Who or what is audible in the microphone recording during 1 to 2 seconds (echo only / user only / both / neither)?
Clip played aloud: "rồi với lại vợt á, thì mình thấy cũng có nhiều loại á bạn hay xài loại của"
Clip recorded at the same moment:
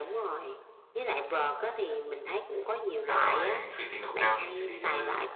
echo only